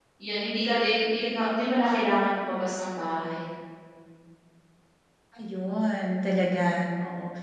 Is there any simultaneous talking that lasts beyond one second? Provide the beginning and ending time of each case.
none

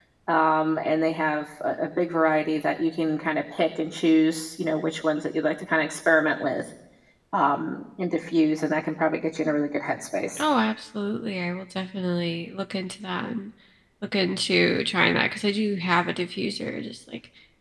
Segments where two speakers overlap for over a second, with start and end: none

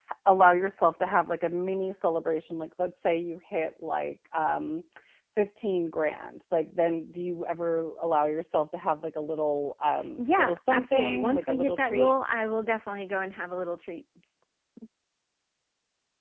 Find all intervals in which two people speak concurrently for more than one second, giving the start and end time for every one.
10.2-12.1

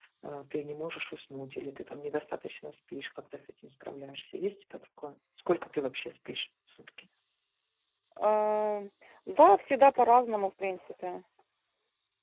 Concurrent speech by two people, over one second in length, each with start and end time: none

